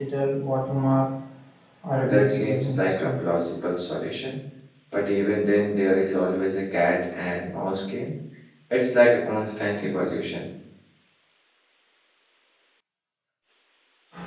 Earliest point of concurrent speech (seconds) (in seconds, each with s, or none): 1.9 s